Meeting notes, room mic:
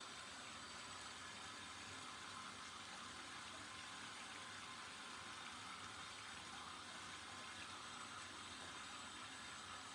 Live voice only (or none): none